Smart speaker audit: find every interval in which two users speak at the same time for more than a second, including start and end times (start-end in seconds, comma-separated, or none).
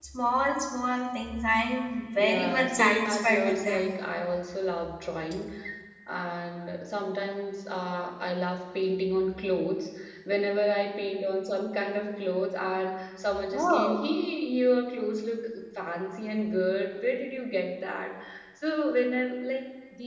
2.2-3.9